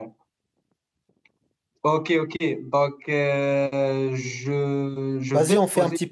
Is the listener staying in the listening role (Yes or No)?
No